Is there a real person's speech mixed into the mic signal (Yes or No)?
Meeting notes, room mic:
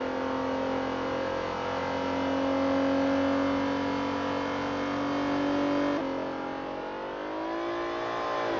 No